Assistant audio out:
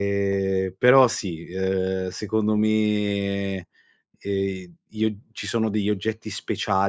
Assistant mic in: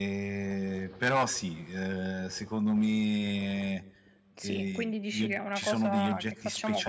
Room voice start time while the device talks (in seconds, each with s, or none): 4.3 s